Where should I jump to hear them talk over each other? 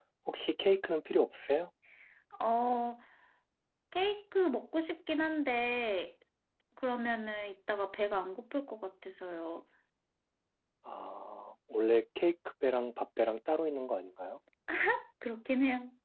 none

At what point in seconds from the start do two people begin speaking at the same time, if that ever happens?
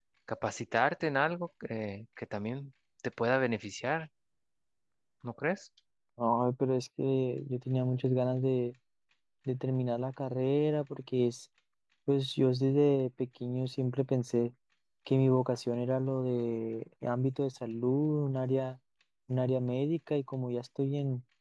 none

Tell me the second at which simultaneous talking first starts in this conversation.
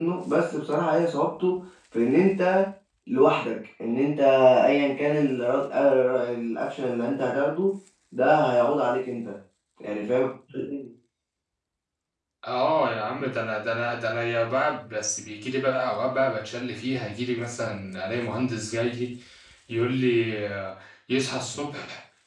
none

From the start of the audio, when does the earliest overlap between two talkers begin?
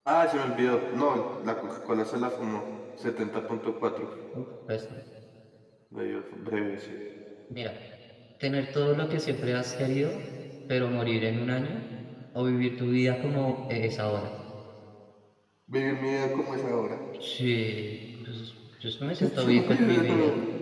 19 s

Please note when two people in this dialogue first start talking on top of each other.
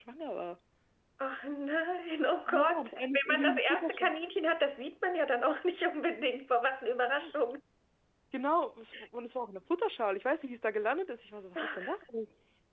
2 s

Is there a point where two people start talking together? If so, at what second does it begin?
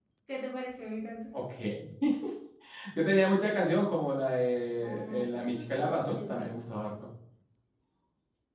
5 s

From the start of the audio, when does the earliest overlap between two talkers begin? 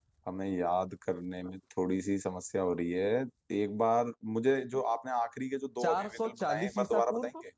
6 s

